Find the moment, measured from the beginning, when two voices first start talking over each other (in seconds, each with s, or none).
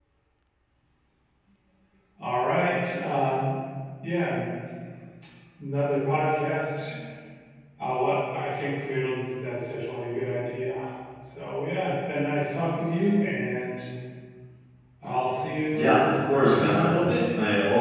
15.7 s